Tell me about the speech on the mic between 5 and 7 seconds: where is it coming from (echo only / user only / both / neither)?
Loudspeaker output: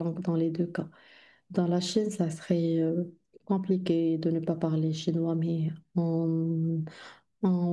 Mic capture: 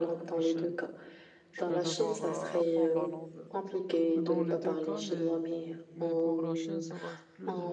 both